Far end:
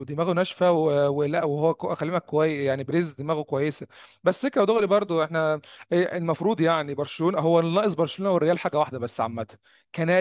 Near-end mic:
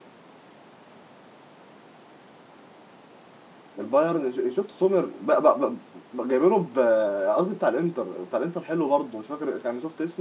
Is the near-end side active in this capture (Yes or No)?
Yes